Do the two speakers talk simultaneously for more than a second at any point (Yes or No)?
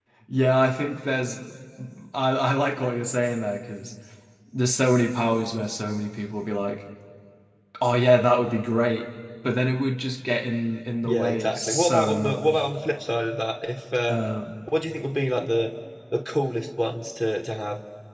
Yes